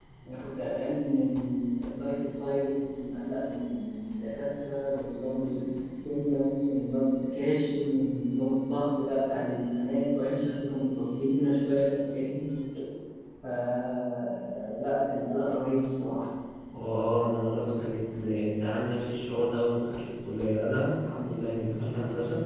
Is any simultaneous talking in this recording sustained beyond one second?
No

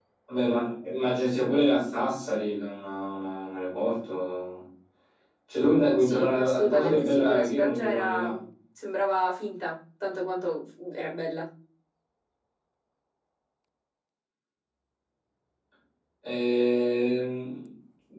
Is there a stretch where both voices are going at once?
Yes, from 6.0 s

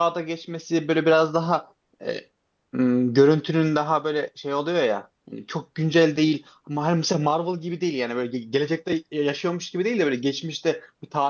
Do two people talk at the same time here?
No

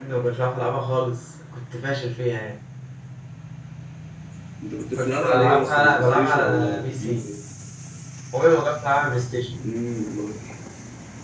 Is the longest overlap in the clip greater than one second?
Yes, from 5.0 s

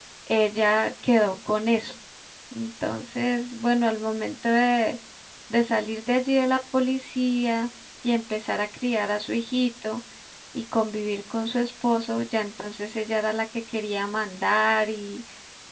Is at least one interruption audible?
No

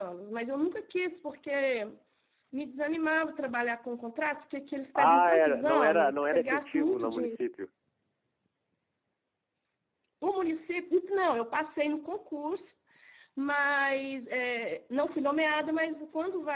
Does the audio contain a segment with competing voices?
Yes, from 5.0 s

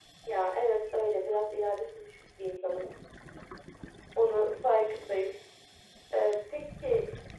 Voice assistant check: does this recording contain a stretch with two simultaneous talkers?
No

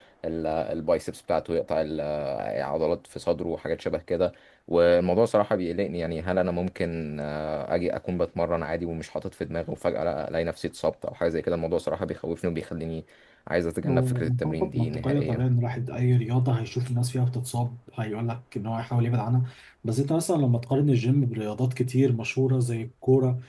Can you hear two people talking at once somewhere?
Yes, from 13.8 s

